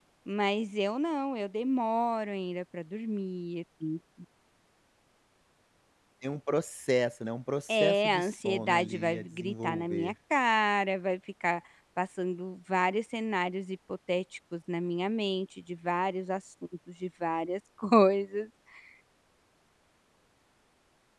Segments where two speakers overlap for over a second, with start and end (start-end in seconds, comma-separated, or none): 7.7-10.1